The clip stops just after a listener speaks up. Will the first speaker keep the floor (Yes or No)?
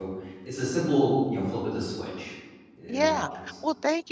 No